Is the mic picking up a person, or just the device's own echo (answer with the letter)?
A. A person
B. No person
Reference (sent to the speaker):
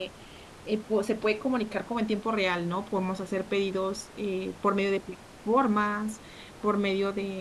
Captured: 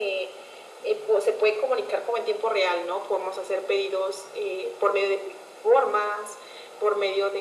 B